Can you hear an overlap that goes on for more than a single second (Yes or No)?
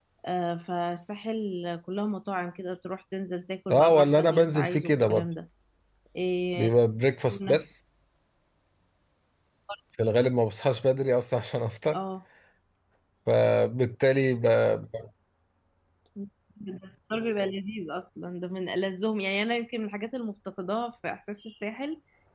Yes